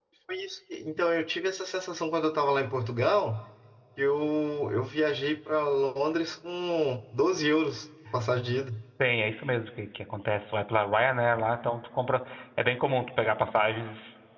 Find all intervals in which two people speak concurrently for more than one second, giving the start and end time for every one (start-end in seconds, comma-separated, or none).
none